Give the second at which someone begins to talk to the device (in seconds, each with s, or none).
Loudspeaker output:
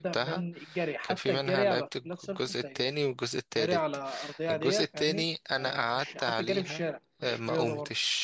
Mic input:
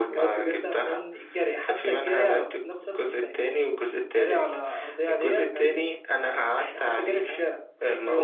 none